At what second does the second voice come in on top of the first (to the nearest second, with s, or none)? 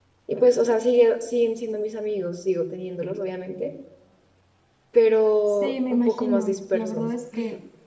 5 s